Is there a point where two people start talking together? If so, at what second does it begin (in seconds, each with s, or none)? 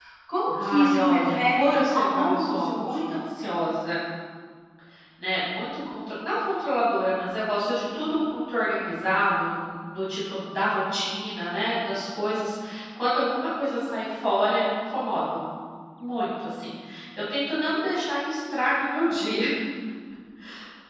0.6 s